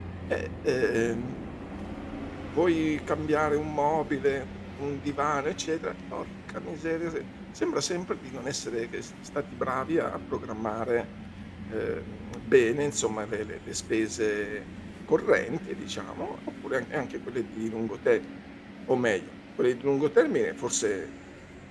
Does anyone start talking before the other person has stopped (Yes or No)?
No